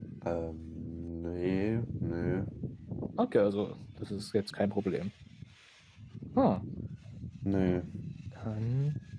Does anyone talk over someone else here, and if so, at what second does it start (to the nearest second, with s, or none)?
none